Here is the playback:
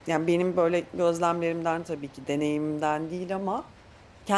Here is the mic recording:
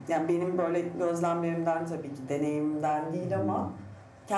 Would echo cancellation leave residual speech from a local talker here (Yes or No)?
Yes